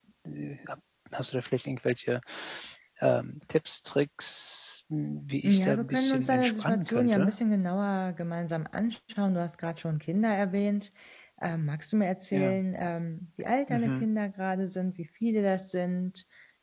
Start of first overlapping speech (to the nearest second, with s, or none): 5 s